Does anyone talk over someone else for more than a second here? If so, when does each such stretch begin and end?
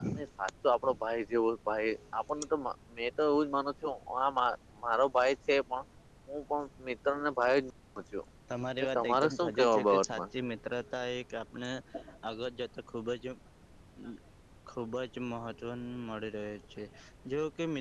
8.8-10.2

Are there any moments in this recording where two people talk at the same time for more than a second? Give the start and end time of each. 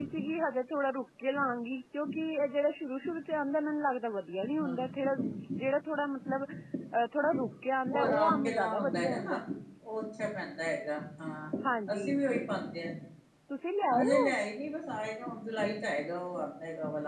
7.9-9.4

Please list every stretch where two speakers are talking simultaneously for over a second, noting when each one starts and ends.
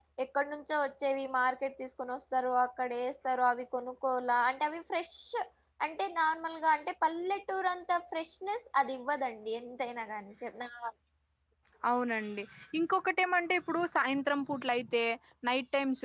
none

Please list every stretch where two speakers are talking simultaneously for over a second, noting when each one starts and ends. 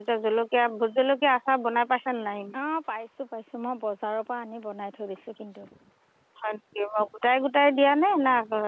none

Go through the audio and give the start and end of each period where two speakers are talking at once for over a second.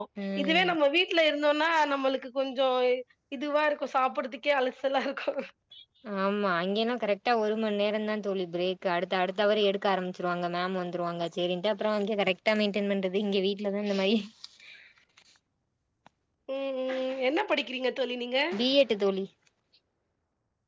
none

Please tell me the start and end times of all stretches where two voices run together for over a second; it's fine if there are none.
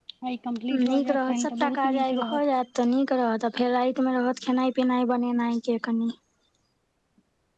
0.9-2.5

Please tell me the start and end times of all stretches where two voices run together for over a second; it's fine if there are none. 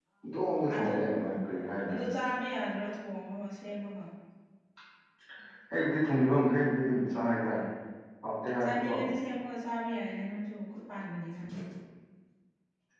none

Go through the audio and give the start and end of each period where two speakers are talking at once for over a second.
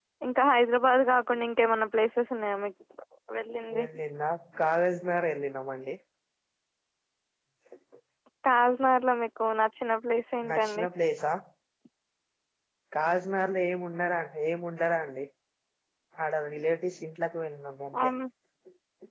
none

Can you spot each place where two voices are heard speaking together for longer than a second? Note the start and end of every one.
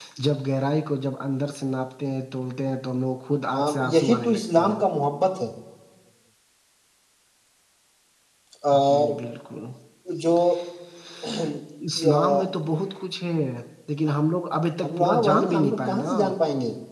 3.6-4.8, 14.8-16.1

